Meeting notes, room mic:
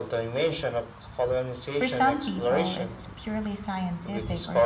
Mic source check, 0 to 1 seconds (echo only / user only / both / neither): echo only